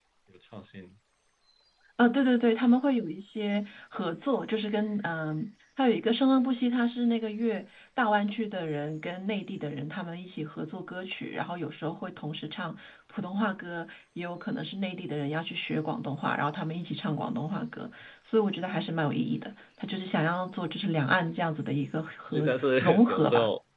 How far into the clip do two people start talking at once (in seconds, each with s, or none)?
22.3 s